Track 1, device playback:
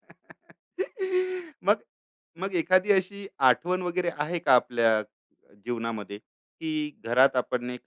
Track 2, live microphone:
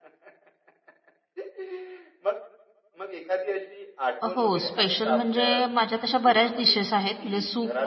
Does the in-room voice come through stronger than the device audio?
Yes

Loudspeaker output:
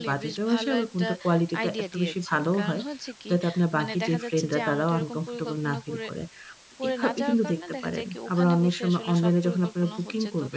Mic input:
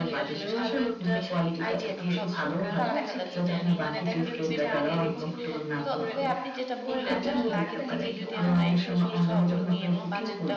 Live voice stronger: No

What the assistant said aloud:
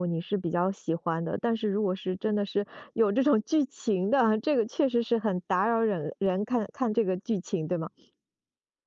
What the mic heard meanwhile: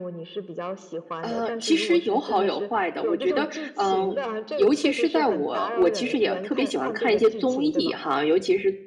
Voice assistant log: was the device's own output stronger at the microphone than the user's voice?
No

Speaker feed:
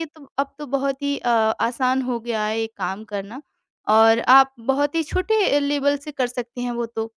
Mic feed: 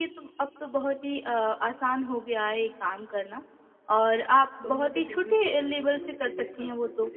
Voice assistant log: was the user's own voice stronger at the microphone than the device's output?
No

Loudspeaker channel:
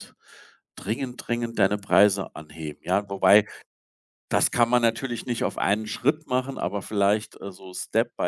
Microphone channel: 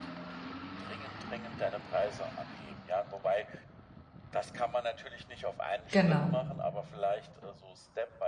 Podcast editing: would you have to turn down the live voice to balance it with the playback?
Yes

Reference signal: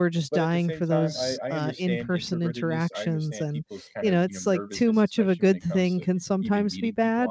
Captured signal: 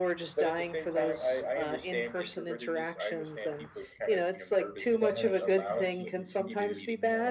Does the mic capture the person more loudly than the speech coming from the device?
No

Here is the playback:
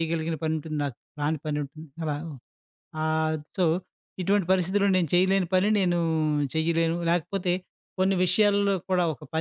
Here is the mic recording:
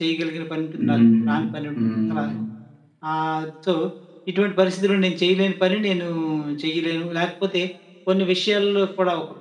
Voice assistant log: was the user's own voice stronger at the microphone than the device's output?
Yes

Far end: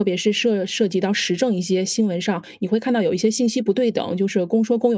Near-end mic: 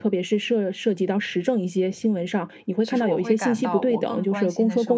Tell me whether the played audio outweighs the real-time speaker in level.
Yes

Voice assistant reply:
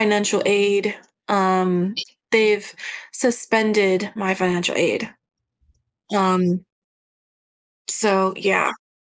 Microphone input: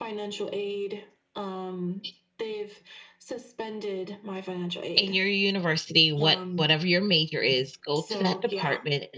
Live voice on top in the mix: Yes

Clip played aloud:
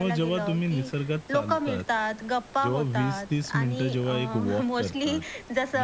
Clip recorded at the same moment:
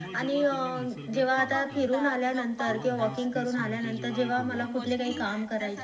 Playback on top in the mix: No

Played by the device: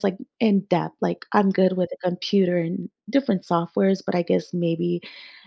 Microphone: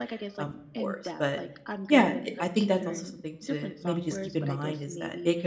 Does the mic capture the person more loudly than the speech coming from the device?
Yes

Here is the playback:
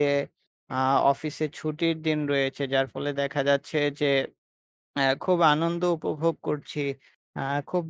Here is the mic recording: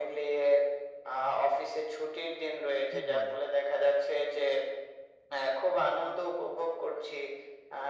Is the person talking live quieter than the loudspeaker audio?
Yes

